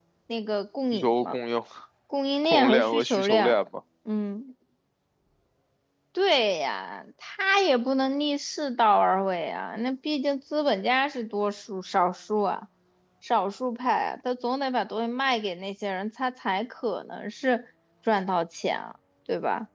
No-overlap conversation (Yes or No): No